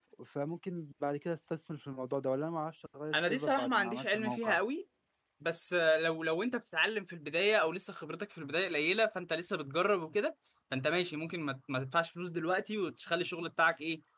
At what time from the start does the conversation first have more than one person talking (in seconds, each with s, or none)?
3.1 s